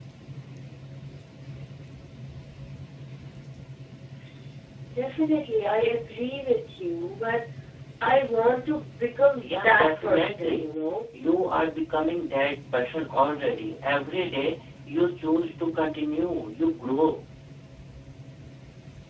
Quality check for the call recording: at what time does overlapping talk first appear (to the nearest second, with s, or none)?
9 s